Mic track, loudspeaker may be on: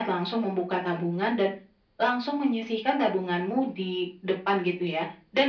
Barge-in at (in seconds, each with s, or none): none